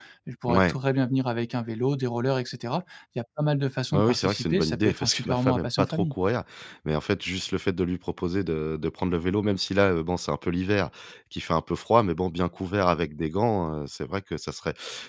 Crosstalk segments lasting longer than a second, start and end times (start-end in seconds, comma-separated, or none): 3.9-6.1